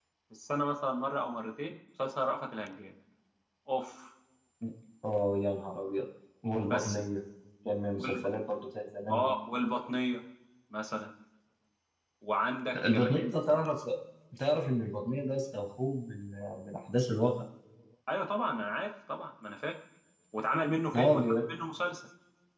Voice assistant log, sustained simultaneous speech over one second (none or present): none